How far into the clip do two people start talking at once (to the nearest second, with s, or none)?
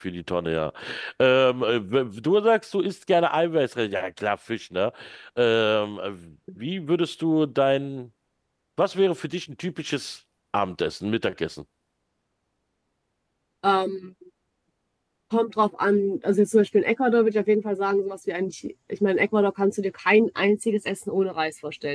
none